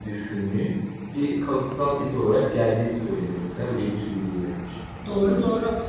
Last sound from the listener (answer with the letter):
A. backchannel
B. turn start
B